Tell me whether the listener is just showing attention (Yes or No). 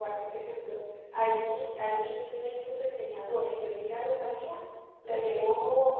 Yes